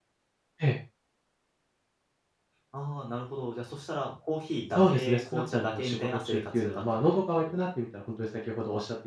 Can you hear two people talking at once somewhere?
Yes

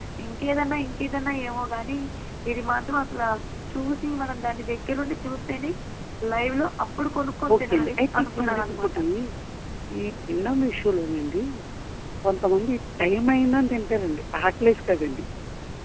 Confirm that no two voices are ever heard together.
No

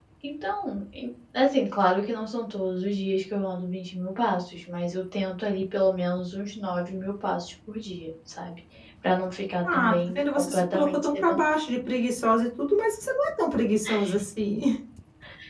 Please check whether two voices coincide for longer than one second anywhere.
Yes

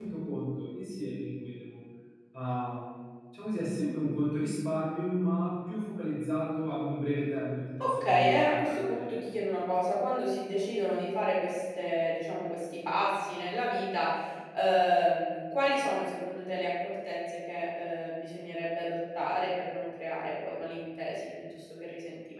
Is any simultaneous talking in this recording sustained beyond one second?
Yes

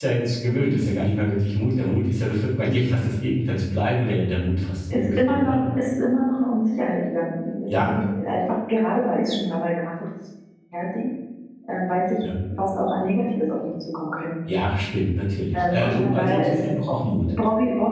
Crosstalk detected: Yes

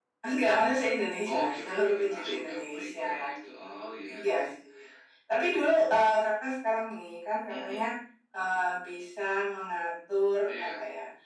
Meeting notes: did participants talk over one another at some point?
Yes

